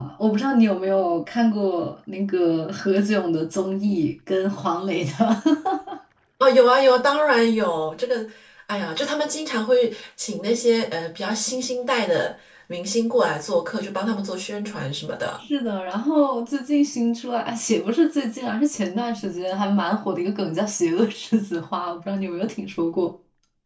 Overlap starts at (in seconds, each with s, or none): none